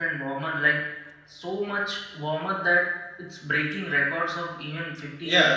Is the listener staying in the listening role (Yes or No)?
No